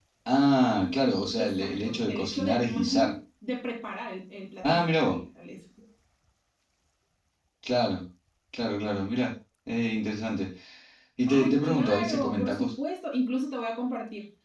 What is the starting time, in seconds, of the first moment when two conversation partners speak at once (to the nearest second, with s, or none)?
1 s